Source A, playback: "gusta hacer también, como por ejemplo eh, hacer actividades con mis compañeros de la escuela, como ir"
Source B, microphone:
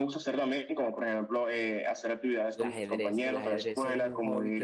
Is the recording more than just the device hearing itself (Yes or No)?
Yes